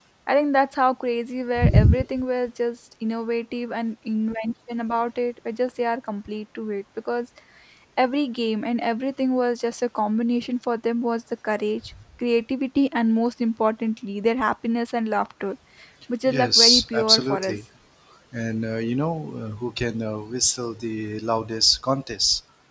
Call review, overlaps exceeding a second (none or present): present